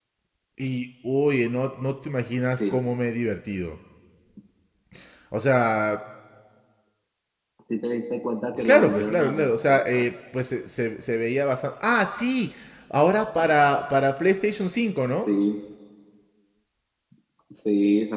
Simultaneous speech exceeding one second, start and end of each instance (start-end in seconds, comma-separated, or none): 8.6-10.1